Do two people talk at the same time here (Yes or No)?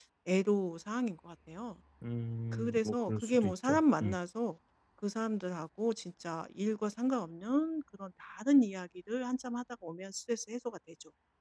Yes